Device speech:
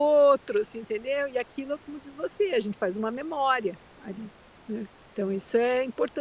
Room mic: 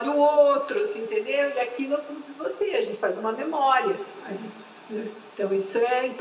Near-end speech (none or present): none